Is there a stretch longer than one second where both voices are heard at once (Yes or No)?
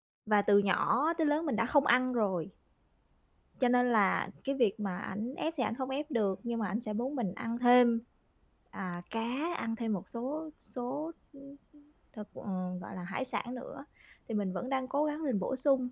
No